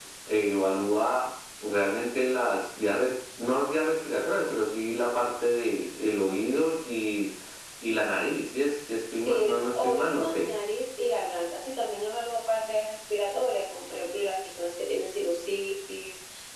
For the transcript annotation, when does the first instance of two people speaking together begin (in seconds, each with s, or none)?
9.1 s